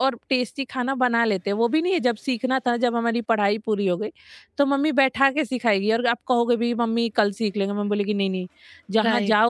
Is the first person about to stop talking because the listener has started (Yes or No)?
Yes